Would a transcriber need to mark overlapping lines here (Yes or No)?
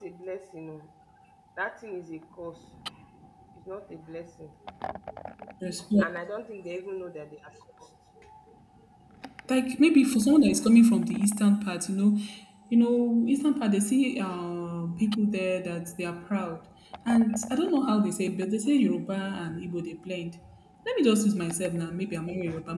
No